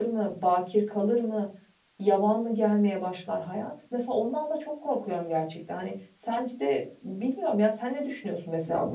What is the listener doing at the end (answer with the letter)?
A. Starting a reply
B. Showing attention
A